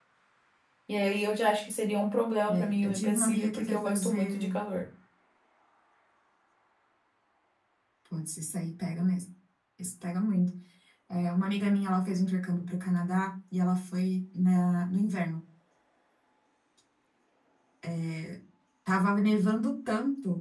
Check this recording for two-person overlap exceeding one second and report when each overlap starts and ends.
2.5-4.6

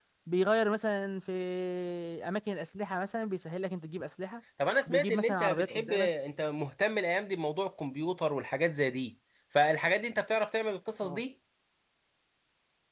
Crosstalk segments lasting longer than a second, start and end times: 4.9-6.1

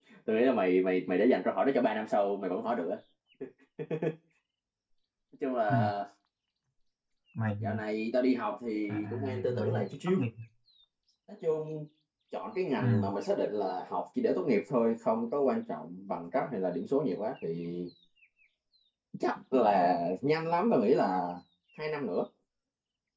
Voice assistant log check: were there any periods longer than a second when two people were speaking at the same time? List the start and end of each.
8.9-10.2

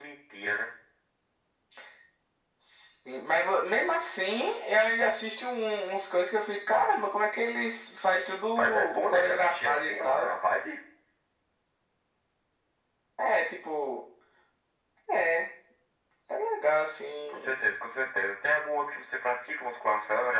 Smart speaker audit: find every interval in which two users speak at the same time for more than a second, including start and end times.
8.6-10.3

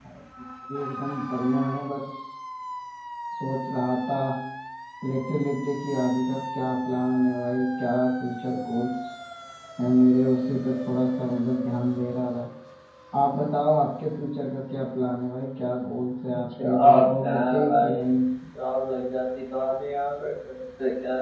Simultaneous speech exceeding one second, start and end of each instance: 16.6-18.0

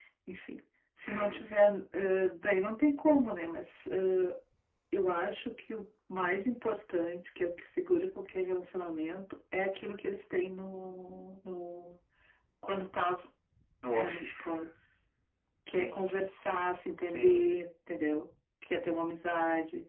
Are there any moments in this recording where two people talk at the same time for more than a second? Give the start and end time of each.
none

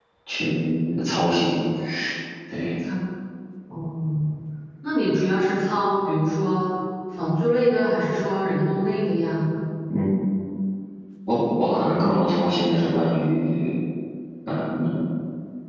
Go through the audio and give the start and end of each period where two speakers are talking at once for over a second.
none

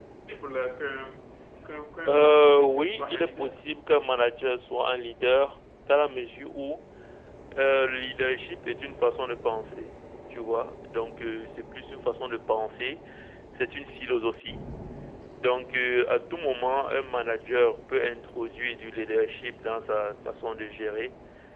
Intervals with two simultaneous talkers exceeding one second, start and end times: 2.1-3.5

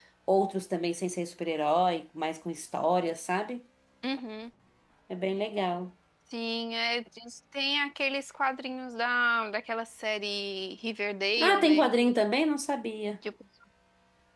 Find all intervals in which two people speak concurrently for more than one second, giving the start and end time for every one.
none

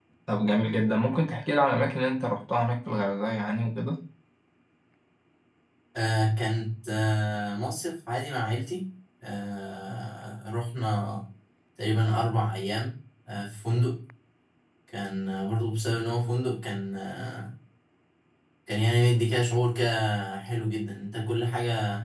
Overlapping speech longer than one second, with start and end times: none

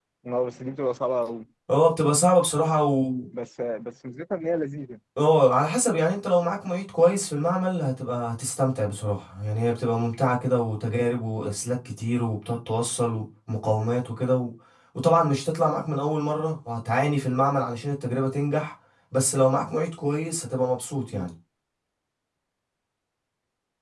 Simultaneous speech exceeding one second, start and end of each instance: none

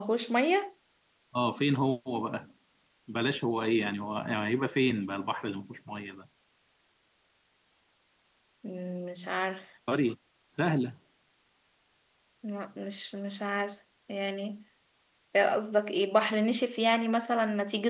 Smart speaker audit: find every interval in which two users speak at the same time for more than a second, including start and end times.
none

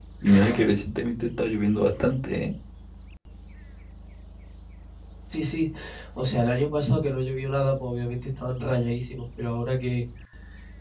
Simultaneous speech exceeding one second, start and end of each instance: none

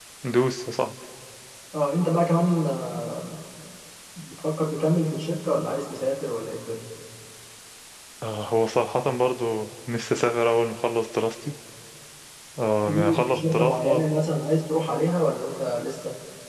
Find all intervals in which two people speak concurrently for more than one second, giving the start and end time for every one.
12.8-14.0

